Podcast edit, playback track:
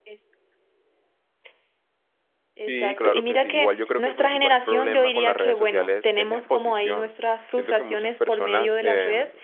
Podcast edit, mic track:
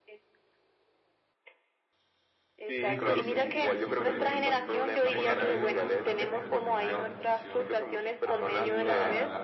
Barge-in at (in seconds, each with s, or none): 2.8 s